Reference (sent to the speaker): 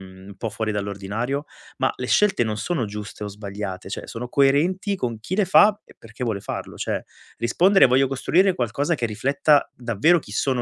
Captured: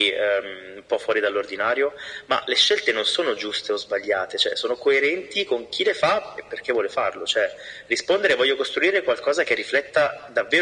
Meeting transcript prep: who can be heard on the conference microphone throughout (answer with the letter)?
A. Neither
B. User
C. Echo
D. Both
C